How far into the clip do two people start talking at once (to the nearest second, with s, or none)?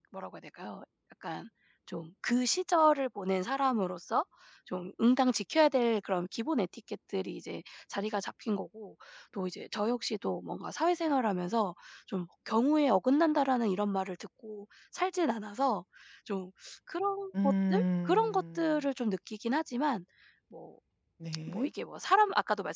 17 s